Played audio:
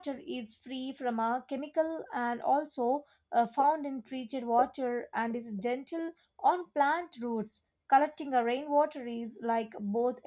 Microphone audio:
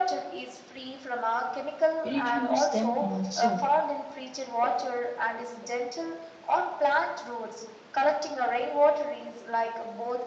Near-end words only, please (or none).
We need to use them also.